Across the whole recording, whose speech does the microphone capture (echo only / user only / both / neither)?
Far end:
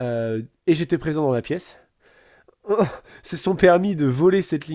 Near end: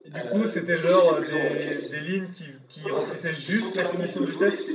both